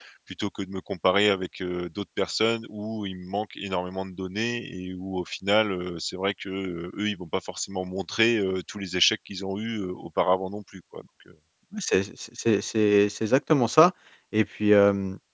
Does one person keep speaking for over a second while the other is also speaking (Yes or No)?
No